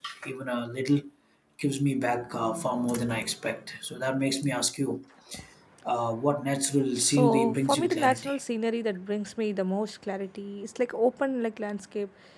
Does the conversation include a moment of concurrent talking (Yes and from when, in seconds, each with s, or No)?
Yes, from 7.0 s